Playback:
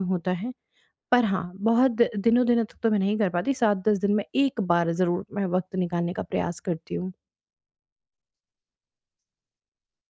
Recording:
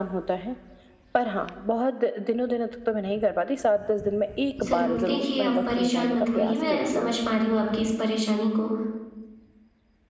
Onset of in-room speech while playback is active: 5 s

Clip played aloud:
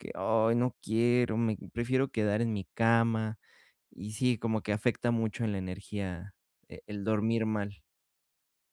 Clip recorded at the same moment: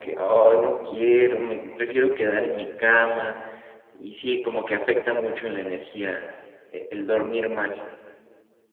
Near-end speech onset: none

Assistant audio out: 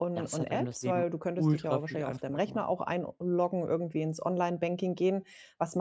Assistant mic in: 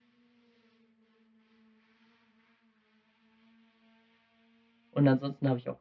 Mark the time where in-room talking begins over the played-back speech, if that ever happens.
5 s

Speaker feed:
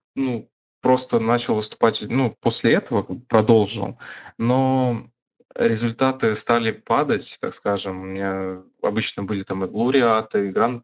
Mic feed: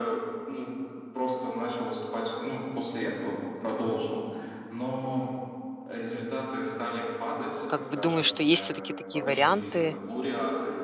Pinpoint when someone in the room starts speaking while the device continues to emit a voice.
8 s

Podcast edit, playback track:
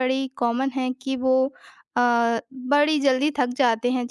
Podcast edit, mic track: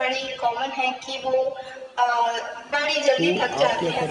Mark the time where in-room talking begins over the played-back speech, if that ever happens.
3 s

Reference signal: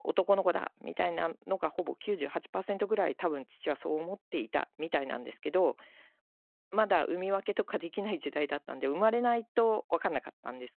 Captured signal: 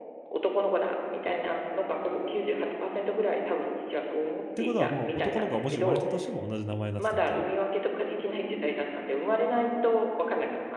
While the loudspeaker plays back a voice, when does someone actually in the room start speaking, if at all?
4 s

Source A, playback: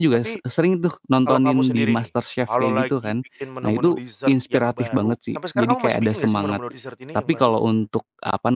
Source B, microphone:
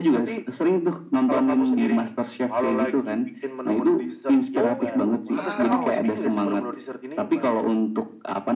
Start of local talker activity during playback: 5 s

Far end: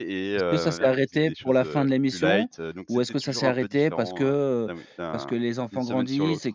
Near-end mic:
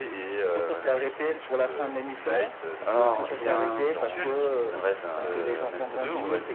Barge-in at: 3 s

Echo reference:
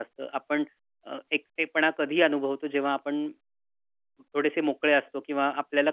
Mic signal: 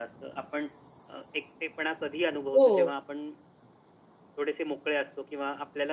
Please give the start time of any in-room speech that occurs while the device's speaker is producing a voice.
3 s

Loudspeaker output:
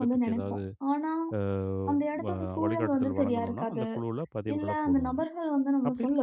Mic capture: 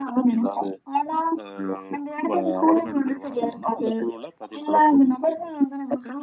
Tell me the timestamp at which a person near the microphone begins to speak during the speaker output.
none

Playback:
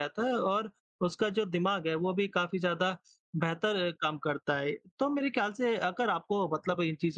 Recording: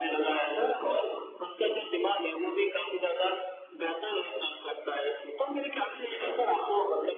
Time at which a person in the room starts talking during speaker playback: none

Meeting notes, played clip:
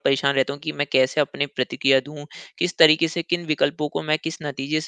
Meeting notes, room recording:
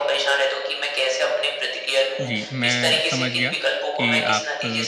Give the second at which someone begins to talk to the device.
2 s

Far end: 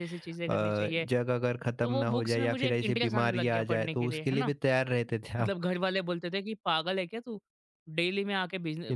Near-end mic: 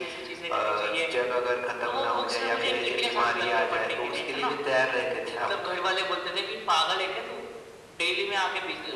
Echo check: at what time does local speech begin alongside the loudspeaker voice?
none

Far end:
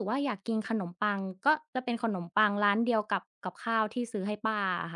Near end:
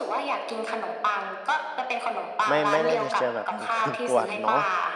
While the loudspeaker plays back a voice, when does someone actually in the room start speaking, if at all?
2 s

